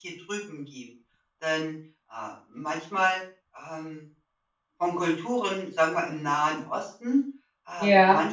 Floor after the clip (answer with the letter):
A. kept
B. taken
A